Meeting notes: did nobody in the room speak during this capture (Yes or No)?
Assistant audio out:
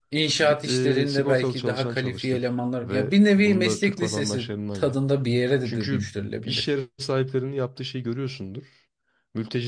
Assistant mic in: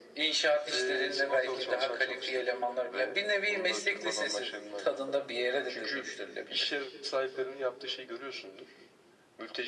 Yes